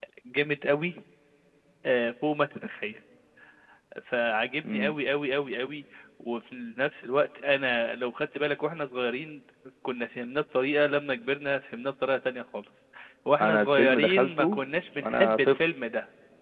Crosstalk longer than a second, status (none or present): present